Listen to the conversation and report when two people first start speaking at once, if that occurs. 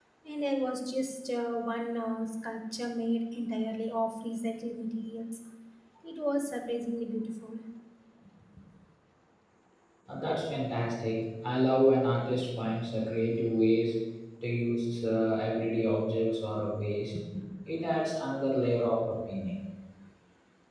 none

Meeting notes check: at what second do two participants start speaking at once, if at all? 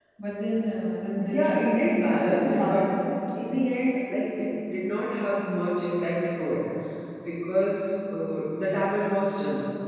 1.2 s

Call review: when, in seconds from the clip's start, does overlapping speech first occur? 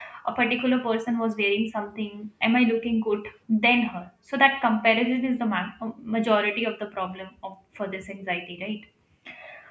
none

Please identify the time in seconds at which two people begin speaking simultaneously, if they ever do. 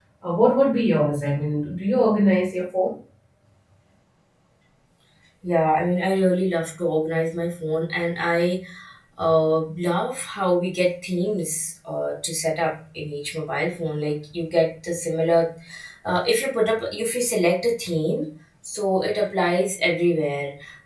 none

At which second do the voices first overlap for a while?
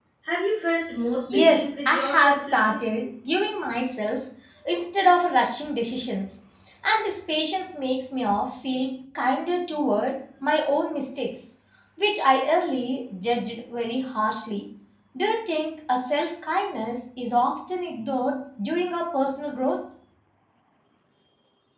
1.3 s

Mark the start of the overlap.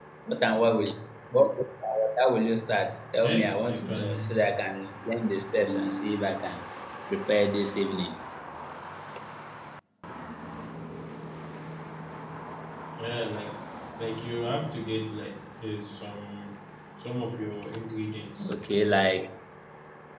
3.2 s

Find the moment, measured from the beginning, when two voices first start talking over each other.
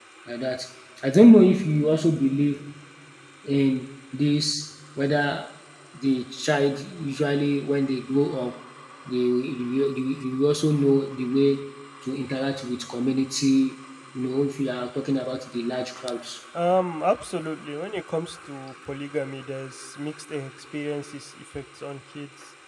none

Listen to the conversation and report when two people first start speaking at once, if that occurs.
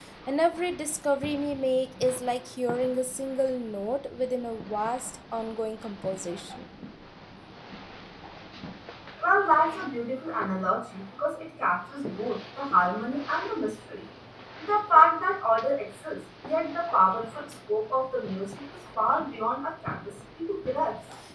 none

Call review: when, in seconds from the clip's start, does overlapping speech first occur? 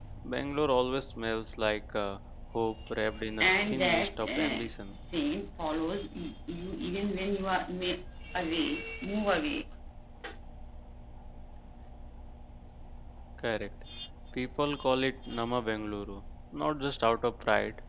3.4 s

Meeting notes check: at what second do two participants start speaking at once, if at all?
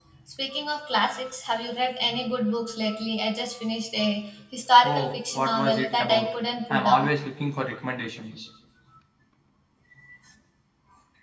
4.8 s

